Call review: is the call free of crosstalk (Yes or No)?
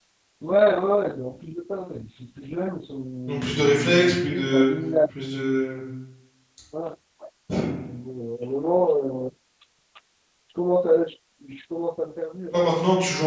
No